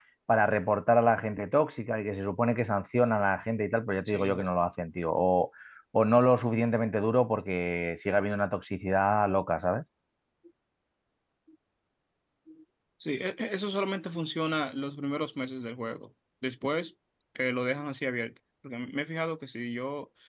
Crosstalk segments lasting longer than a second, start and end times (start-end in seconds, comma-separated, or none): none